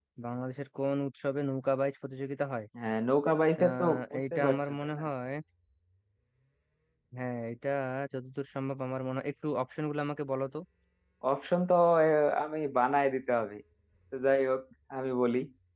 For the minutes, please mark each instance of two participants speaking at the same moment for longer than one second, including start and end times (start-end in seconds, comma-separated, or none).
3.6-5.0